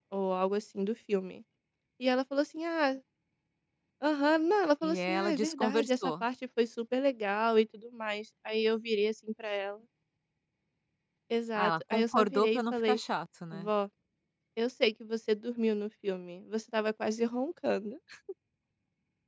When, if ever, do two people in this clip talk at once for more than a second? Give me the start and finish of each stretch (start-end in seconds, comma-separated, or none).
4.8-6.2, 11.6-13.0